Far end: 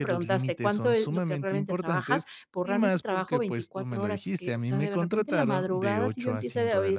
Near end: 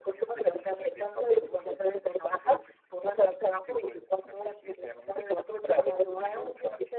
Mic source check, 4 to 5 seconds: echo only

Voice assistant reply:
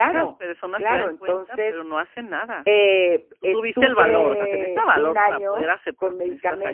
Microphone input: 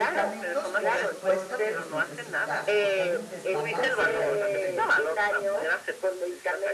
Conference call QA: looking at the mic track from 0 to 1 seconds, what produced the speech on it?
both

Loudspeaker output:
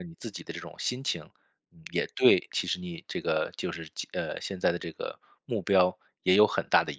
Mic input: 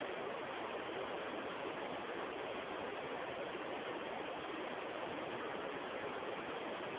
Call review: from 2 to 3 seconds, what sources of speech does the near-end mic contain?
neither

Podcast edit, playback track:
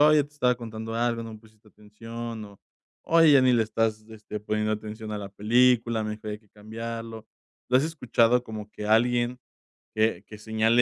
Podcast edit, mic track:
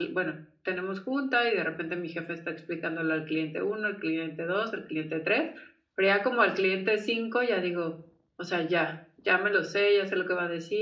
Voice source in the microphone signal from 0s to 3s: user only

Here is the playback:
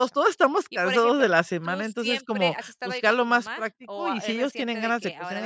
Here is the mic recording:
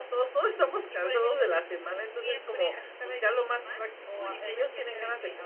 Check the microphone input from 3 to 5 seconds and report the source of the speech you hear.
echo only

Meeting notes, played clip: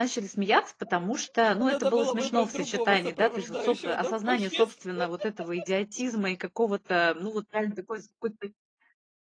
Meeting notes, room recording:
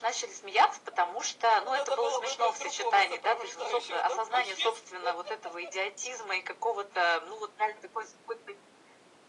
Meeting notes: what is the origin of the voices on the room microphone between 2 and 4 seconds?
echo only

